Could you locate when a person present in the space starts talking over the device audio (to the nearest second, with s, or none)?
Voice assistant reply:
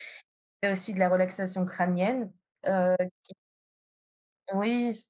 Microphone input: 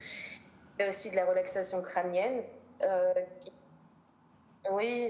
none